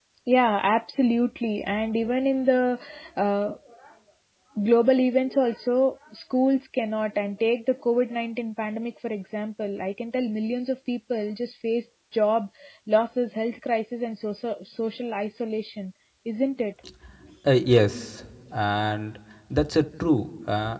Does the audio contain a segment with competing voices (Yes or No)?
No